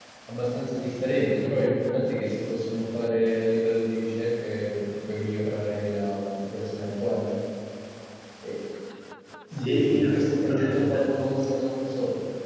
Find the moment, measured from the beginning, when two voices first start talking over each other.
10 s

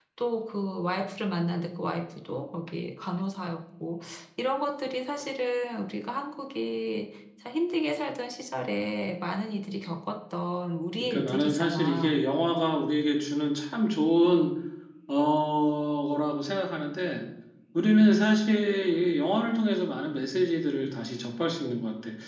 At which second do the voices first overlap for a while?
11 s

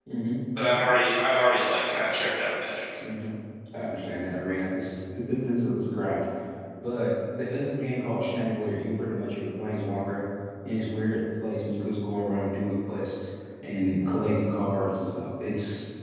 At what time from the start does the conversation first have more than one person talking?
none

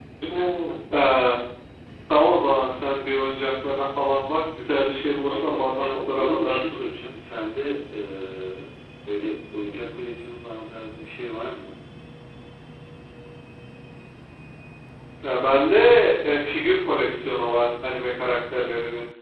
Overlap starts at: 5 s

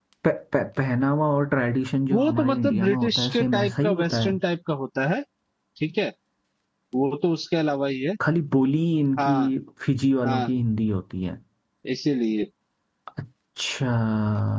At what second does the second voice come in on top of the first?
2 s

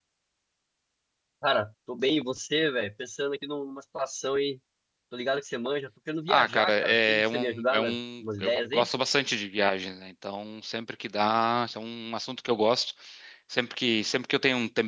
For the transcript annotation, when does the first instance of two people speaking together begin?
6 s

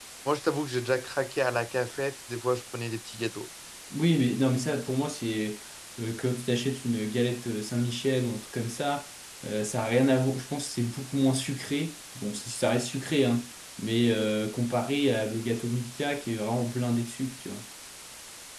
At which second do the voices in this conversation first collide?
none

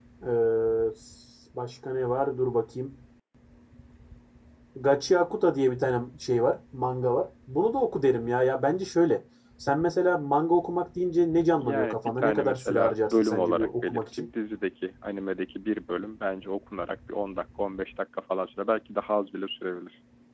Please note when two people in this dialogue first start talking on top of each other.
12 s

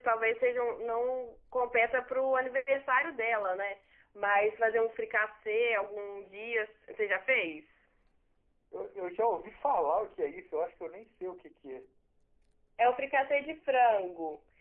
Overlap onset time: none

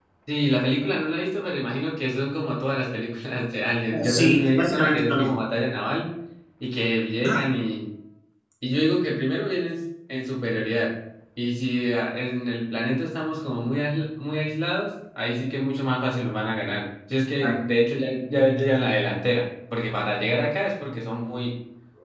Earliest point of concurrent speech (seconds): 4 s

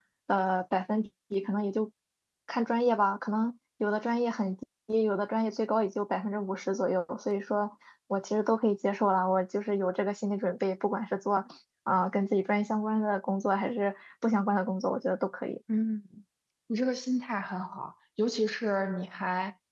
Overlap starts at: none

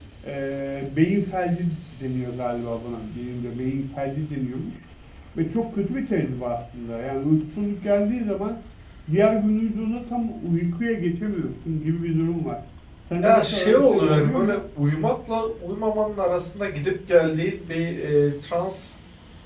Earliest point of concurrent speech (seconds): 13 s

